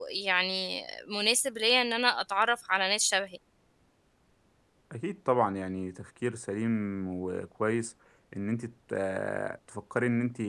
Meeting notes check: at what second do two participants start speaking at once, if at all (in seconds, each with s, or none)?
none